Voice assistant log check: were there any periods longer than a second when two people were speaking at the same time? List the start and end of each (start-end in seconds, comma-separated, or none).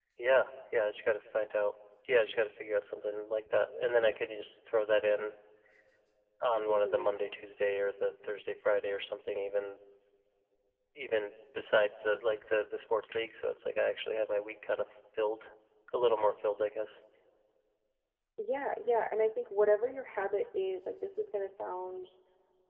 none